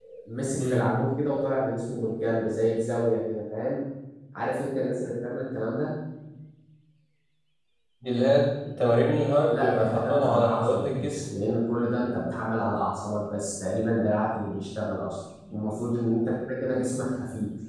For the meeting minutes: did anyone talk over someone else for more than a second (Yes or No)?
Yes